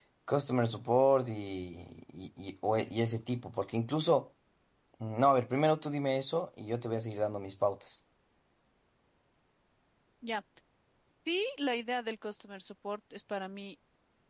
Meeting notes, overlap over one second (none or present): none